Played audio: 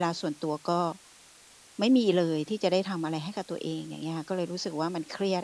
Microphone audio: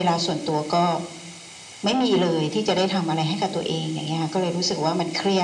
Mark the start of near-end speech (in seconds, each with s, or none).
none